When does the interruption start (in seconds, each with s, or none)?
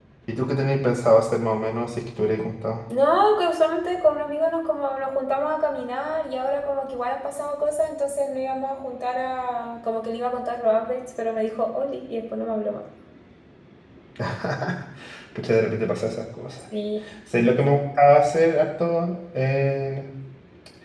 none